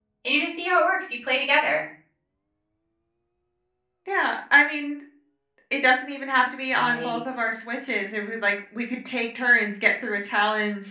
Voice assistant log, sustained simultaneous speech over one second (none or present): none